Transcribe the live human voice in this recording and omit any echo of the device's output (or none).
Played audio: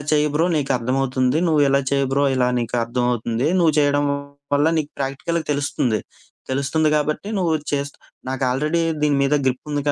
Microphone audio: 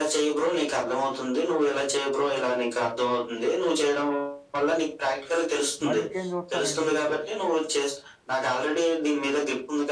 మరి ఇంకేం జూస్తారండి?